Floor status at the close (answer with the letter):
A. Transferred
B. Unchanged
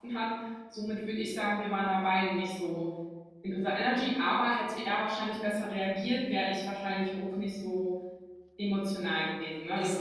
A